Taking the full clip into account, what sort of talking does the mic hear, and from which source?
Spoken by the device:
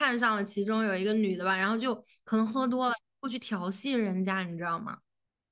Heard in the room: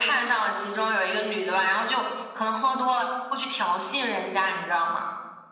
echo only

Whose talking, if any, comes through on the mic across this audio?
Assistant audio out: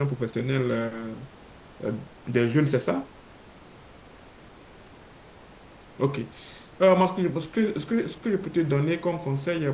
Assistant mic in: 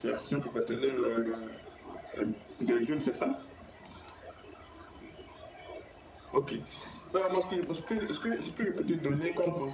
echo only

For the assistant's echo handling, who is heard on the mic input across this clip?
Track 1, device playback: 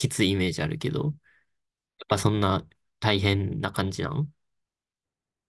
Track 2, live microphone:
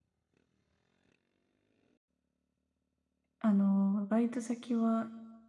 user only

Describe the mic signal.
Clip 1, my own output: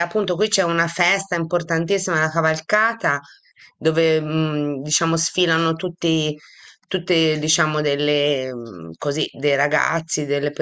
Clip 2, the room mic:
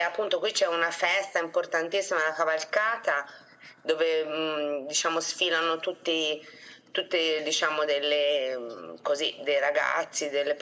echo only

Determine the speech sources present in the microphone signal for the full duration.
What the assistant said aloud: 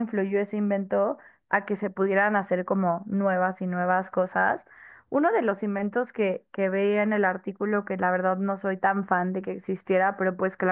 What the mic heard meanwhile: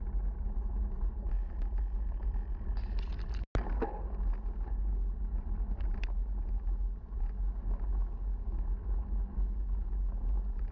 neither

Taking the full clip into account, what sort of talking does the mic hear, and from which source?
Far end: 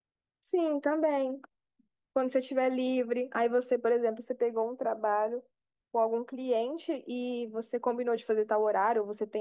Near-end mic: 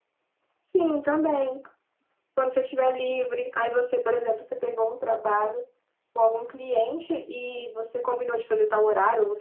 echo only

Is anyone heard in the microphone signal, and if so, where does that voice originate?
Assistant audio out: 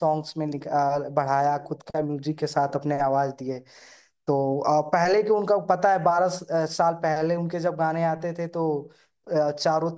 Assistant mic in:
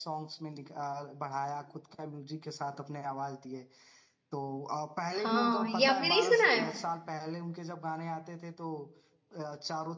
both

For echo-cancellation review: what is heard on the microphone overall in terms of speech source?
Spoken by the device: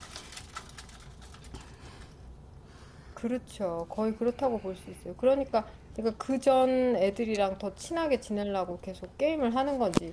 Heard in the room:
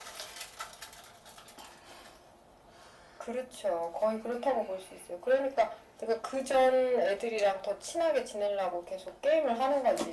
echo only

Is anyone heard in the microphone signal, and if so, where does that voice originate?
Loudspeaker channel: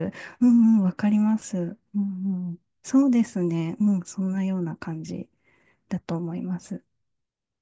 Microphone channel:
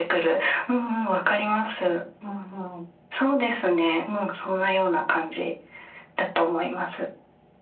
echo only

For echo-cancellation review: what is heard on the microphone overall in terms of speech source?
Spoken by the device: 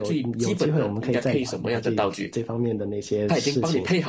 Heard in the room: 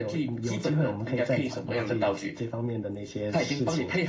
both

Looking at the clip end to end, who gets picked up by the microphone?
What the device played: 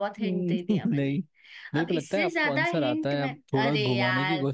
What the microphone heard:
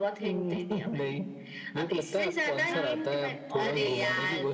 both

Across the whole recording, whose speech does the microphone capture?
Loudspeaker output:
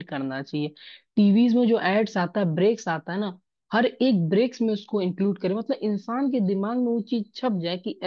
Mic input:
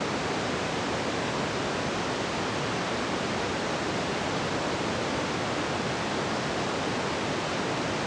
neither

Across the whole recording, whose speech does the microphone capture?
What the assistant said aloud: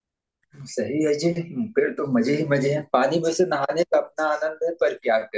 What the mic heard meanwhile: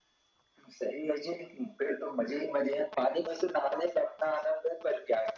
echo only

